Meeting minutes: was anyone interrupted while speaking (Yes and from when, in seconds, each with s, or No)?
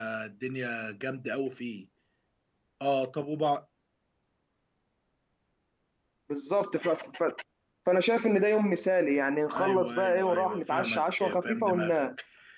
Yes, from 9.5 s